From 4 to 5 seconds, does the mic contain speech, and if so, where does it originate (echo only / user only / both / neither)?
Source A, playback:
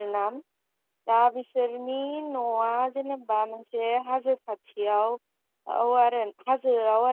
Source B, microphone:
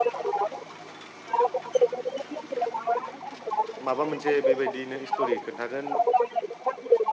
both